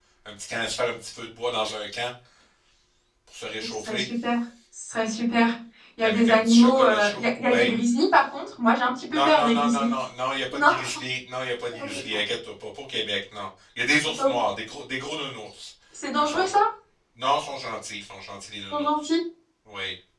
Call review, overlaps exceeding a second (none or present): present